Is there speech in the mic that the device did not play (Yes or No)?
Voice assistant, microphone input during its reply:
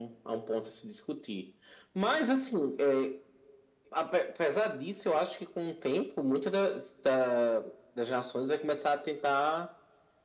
No